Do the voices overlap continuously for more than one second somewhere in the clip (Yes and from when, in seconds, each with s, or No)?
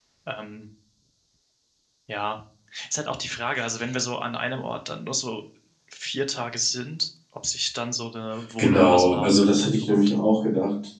Yes, from 8.6 s